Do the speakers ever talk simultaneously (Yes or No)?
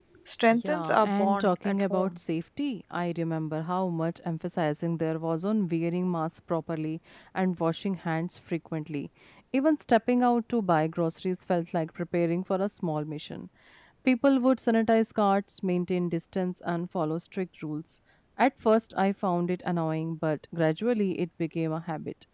Yes